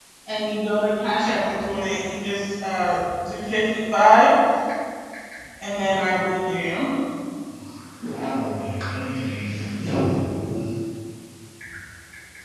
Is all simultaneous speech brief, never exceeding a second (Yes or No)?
Yes